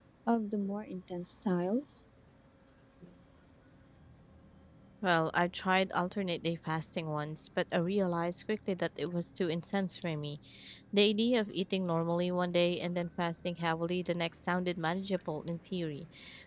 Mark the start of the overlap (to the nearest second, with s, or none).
none